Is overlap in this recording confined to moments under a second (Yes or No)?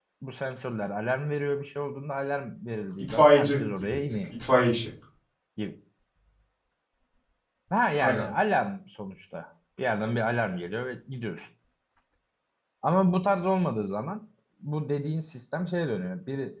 No